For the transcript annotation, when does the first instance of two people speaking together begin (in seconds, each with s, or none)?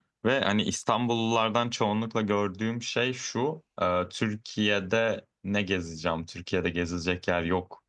none